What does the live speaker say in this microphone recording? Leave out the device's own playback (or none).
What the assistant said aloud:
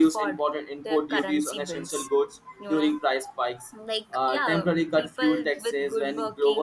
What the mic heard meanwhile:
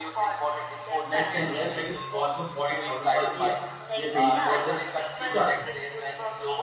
next 10 years like it's almost 40000 per year they're paying for just recharges